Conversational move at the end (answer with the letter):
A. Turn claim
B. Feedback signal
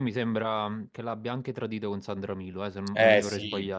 A